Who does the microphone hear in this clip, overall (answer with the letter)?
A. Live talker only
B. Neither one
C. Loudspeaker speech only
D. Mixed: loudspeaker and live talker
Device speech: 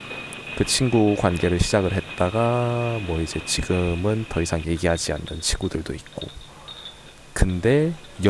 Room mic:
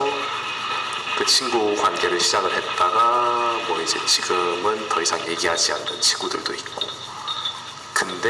C